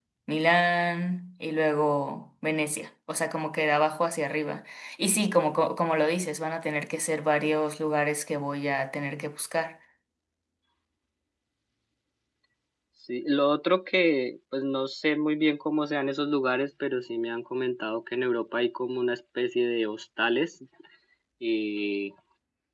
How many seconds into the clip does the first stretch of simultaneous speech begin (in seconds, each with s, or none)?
none